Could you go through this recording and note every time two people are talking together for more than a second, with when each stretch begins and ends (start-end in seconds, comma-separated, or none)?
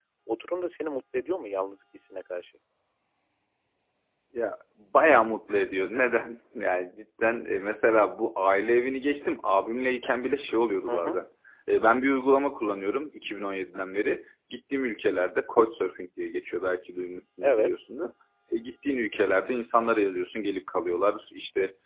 none